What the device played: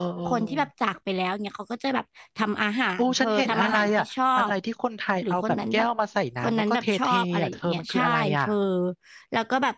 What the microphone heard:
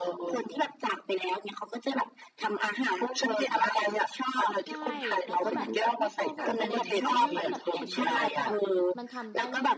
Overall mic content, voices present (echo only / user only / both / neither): both